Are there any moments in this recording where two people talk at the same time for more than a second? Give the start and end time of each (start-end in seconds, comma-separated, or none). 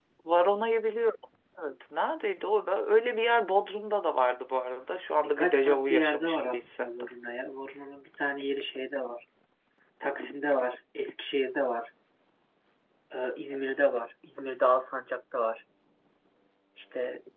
5.2-7.1